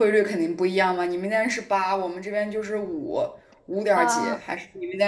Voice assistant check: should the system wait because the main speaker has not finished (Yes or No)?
Yes